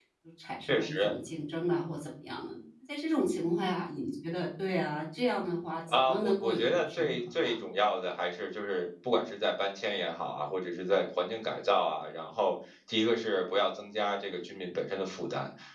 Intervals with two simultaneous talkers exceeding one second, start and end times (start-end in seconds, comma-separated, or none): 5.9-7.5